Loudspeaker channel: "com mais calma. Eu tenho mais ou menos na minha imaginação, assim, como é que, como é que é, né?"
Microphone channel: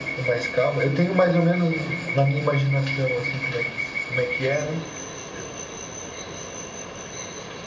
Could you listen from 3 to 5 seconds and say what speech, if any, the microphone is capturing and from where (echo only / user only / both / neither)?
echo only